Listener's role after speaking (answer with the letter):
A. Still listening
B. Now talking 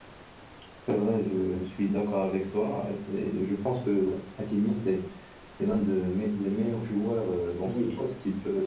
A